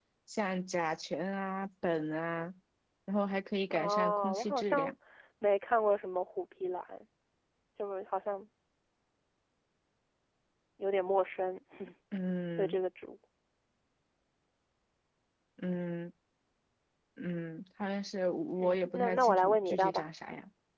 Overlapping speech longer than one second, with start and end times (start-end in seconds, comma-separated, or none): 3.7-4.9, 18.6-20.0